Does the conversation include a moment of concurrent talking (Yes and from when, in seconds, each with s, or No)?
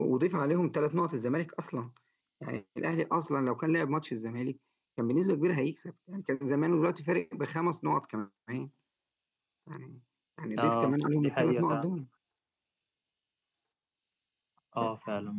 Yes, from 10.6 s